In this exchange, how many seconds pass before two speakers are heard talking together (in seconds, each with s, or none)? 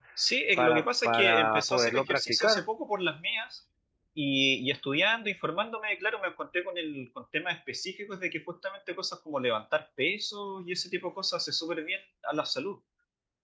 0.6 s